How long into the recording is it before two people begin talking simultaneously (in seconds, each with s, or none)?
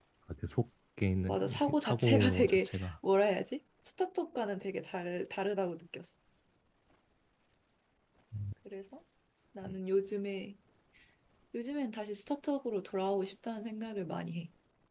1.3 s